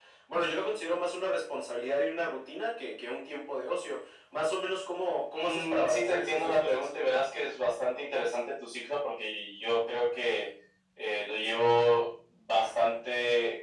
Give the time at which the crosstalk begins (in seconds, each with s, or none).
5.4 s